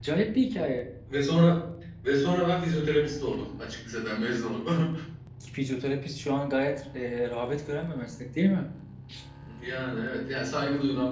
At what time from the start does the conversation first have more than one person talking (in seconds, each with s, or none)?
none